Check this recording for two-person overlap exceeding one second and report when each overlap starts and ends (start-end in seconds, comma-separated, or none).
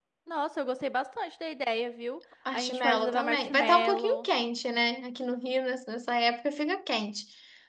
2.5-4.3